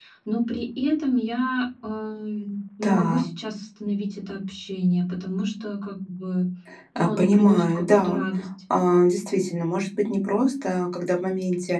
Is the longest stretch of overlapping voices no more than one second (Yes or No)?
No